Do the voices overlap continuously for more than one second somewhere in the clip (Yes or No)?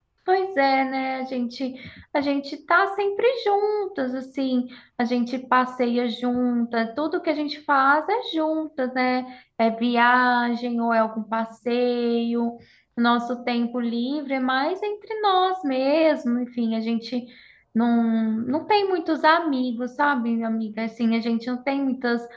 No